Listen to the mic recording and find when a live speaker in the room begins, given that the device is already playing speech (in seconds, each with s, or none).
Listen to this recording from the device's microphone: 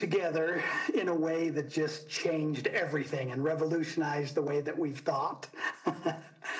none